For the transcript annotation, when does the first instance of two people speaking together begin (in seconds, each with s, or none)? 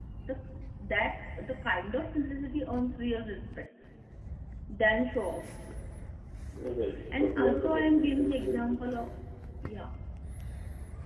7.1 s